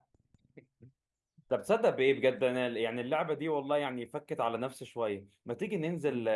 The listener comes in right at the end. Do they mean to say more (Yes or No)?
No